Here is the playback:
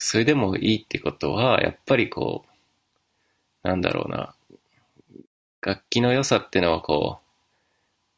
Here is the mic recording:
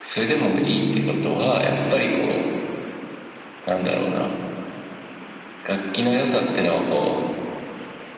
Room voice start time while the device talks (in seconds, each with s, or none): 0.6 s